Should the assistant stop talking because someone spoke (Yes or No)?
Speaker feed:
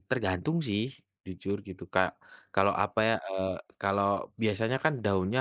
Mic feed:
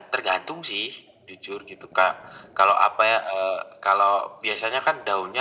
No